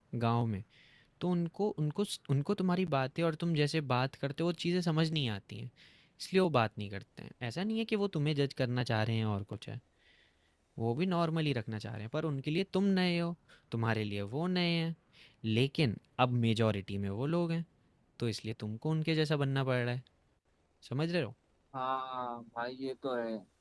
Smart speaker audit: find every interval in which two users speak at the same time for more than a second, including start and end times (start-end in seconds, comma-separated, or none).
none